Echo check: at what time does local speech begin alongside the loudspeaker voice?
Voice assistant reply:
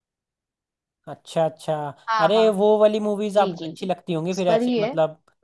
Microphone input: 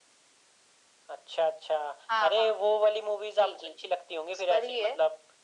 none

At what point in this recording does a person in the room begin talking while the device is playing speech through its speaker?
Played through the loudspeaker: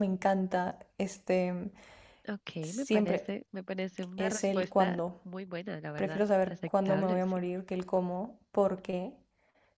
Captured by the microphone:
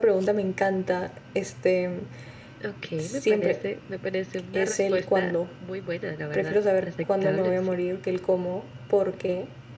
none

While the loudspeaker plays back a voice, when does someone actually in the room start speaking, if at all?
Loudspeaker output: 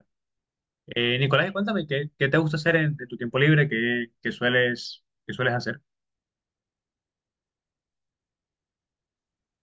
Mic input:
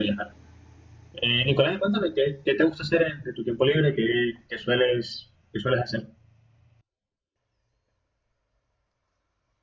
none

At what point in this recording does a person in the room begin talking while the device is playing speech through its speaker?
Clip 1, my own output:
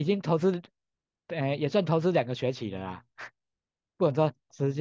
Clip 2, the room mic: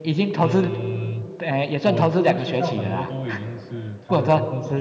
0 s

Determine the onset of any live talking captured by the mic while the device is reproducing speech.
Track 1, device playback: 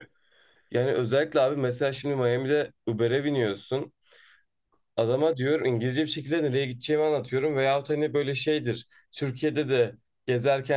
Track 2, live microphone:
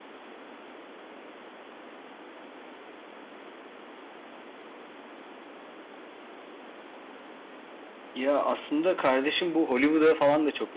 8 s

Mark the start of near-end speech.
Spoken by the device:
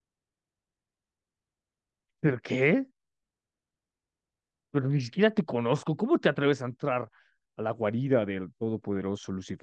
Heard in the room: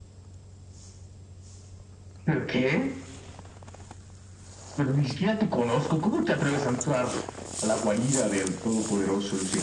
none

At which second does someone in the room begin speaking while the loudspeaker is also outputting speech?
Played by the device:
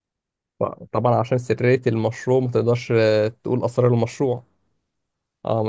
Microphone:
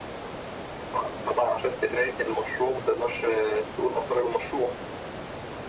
none

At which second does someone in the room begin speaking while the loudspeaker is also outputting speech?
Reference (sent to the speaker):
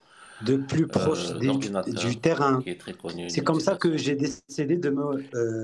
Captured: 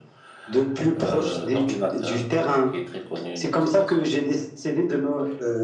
none

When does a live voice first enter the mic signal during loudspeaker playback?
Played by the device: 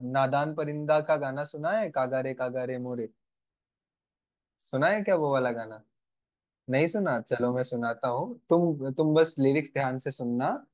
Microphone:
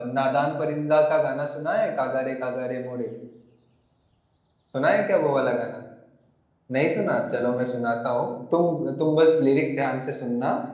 none

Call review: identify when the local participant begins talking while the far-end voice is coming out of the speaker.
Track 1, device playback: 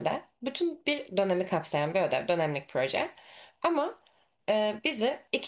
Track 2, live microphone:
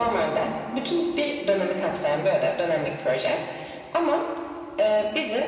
none

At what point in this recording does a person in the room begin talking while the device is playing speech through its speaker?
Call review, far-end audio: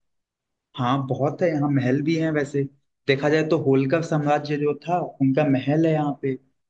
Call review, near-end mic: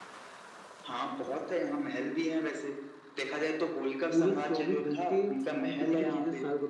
4 s

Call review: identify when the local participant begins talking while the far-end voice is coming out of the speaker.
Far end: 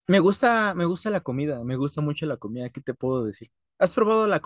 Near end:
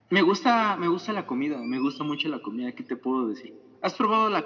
none

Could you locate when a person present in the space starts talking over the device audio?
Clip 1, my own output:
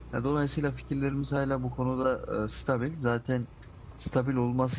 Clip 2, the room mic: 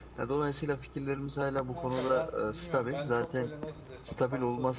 2 s

